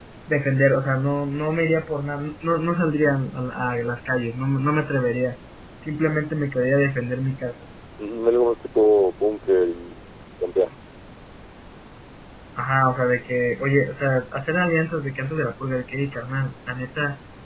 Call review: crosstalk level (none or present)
none